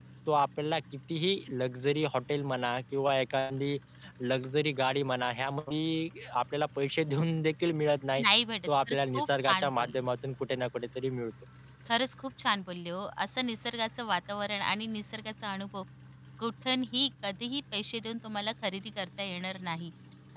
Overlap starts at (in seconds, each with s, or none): 8.7 s